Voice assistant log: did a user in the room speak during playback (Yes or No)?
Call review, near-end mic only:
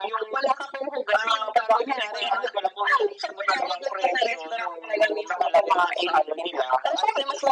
No